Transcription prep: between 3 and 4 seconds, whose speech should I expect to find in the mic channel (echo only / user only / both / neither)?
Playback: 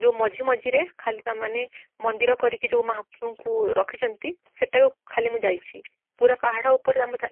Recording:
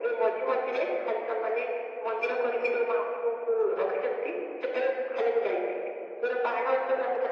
echo only